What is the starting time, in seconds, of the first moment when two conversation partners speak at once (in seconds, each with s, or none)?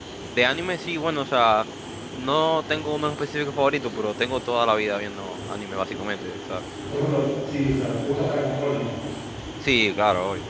none